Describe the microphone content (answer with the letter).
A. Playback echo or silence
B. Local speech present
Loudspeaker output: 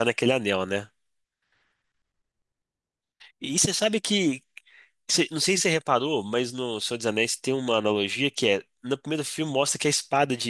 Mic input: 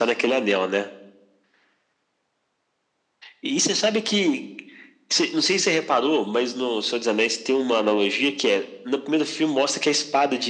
A